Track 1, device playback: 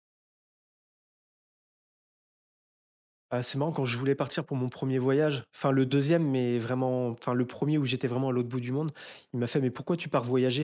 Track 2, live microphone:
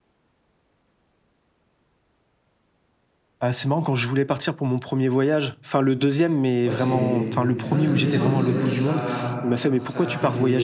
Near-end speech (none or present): present